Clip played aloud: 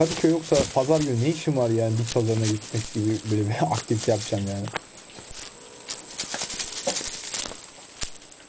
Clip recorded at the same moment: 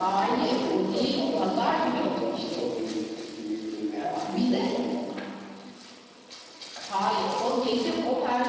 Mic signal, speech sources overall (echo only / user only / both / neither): both